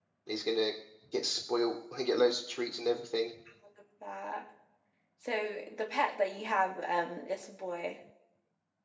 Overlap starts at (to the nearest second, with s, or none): none